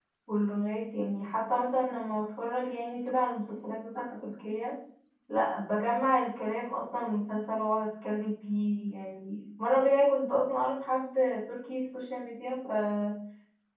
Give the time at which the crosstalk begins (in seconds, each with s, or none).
none